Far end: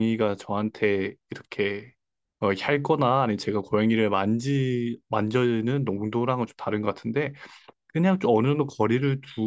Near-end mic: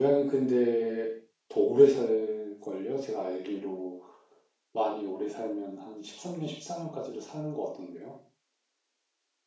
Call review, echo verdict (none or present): none